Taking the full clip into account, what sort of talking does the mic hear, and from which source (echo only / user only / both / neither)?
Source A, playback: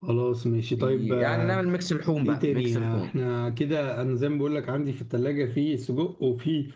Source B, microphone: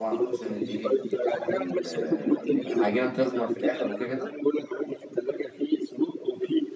both